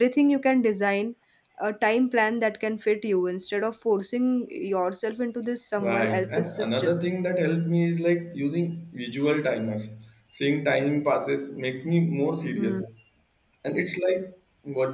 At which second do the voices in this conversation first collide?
5.8 s

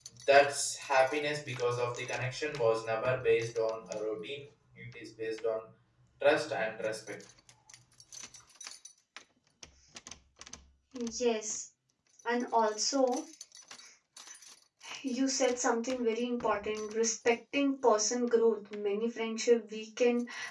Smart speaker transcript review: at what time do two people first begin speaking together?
none

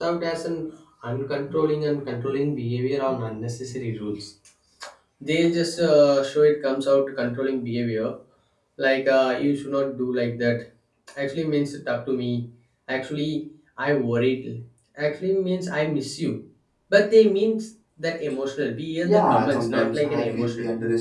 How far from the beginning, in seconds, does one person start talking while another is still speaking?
19.0 s

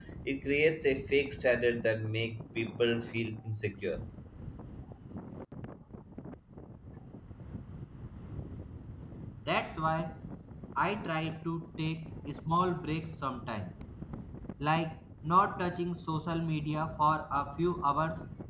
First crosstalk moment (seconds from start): none

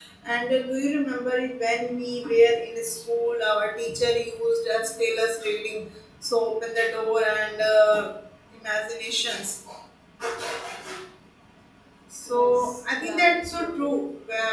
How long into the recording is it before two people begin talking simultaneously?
12.3 s

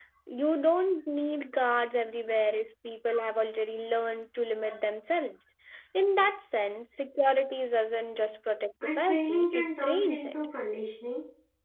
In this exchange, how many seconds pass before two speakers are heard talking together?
8.8 s

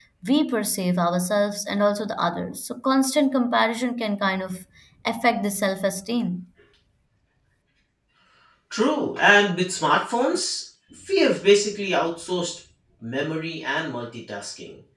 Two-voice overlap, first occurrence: none

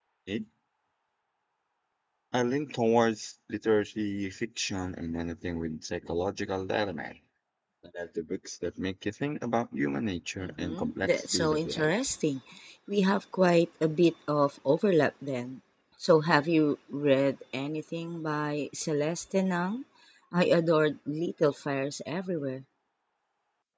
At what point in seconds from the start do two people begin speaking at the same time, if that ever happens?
10.4 s

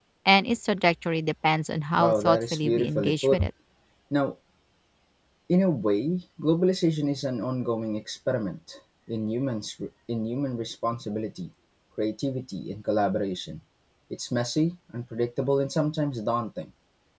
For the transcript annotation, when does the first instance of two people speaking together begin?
2.0 s

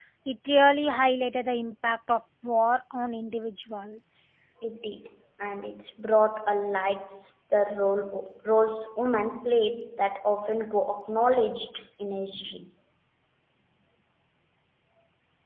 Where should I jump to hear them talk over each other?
none

